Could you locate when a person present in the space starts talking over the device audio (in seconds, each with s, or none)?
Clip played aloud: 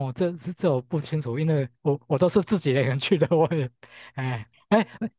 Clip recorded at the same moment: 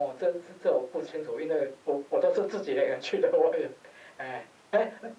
none